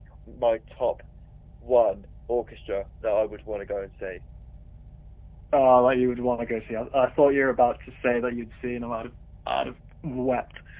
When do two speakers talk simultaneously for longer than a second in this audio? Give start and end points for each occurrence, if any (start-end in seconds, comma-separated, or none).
none